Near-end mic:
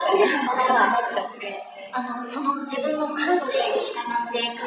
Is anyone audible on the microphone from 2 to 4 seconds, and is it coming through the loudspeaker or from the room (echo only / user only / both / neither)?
echo only